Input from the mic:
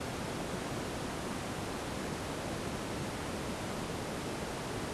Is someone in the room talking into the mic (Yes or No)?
No